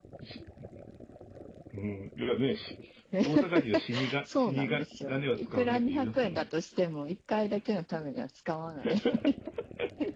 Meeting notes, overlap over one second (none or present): present